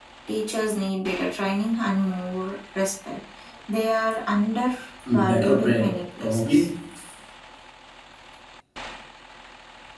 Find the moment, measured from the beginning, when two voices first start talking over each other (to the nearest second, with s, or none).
5 s